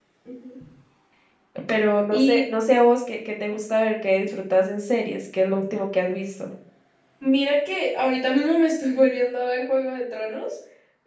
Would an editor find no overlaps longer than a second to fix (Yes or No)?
Yes